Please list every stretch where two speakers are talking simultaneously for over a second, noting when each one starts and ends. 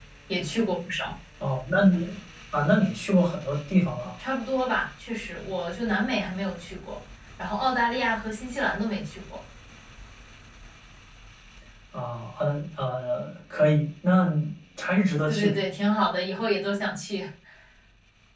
none

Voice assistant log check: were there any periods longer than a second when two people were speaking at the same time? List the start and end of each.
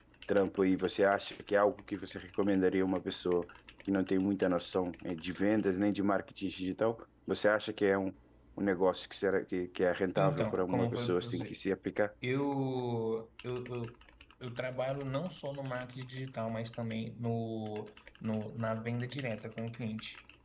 10.2-11.6

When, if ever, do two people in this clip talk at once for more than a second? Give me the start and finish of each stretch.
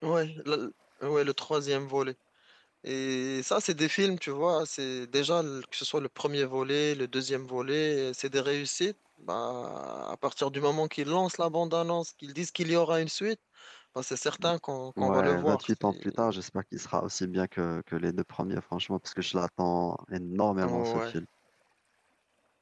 15.0-16.3

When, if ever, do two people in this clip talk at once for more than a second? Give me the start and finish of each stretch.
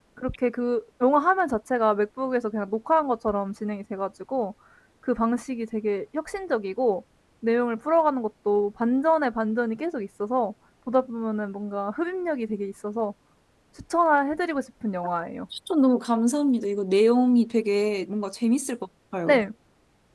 none

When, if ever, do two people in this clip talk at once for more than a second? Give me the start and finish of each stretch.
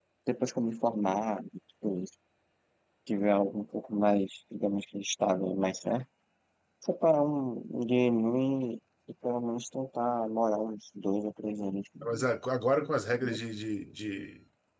none

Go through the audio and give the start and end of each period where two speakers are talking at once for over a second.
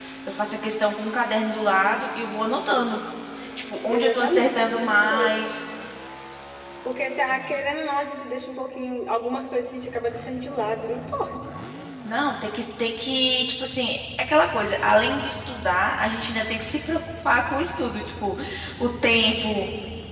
3.9-5.3

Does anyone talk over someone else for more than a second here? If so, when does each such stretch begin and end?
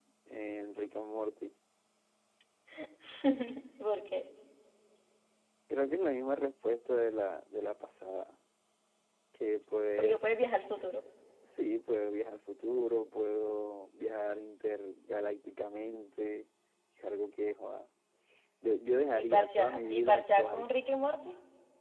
19.1-20.7

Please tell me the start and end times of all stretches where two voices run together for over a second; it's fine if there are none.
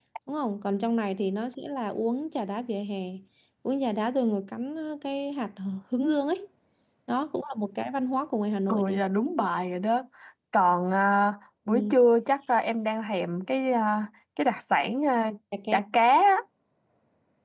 none

